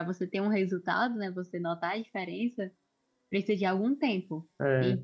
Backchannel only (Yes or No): Yes